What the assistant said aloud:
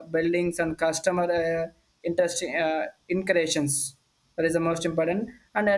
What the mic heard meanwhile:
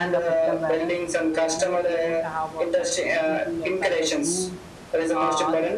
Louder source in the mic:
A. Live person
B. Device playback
B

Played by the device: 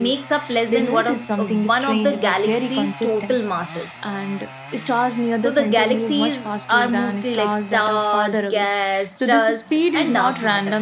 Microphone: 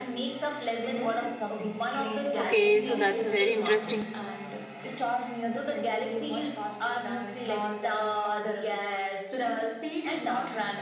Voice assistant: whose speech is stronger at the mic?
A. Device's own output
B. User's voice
B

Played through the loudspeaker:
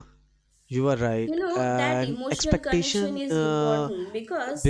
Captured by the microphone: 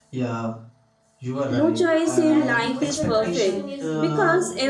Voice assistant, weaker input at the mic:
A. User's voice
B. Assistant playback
B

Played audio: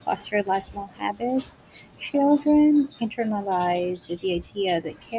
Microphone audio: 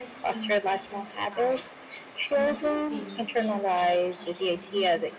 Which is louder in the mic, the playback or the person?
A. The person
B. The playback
B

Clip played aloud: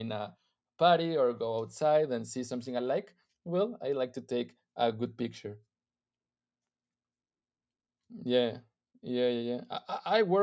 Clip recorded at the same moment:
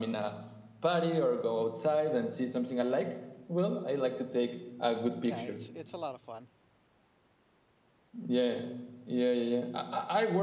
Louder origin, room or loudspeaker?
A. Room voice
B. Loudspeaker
B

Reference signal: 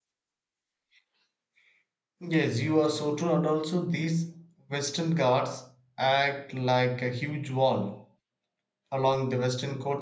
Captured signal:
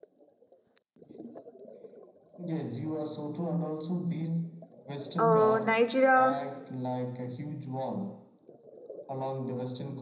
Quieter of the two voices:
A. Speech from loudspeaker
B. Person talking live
A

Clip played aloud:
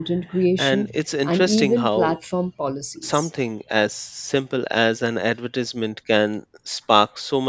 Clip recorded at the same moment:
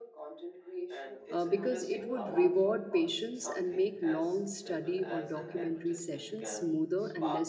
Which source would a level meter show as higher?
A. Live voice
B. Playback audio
A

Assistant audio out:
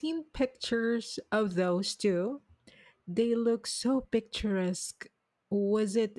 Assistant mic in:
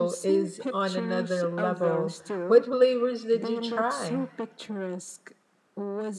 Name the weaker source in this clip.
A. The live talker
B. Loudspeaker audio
B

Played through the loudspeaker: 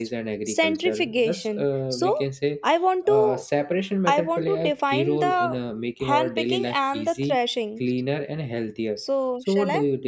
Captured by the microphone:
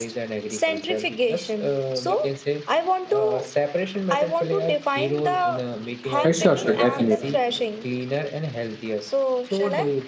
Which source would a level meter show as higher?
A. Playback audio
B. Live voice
B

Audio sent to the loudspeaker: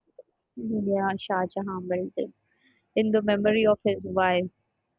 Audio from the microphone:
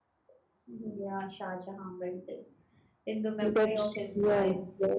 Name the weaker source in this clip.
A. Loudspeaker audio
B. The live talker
A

